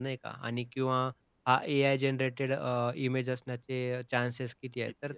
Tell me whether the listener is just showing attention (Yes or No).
Yes